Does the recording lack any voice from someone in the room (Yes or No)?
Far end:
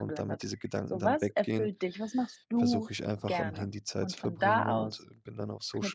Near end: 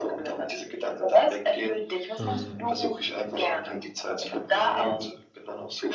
No